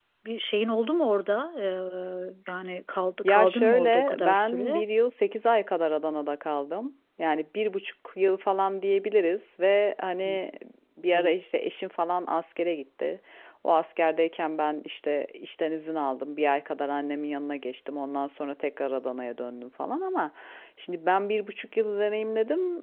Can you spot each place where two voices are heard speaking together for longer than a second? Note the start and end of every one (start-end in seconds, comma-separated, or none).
3.2-4.8